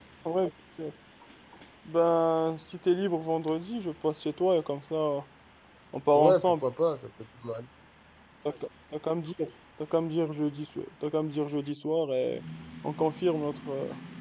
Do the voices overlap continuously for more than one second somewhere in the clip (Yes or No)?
No